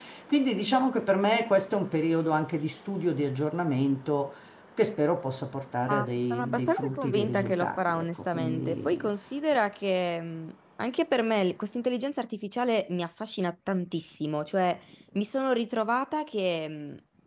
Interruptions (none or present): present